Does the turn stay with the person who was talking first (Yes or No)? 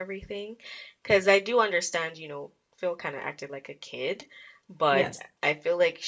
Yes